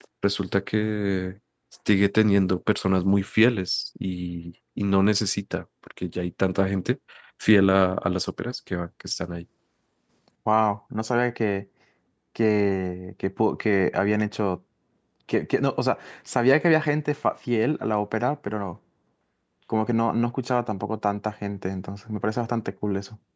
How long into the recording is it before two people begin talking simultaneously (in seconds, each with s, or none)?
none